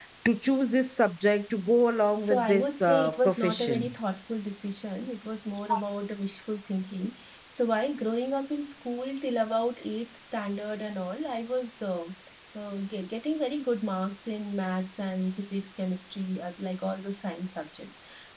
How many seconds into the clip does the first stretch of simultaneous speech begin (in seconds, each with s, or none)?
2.2 s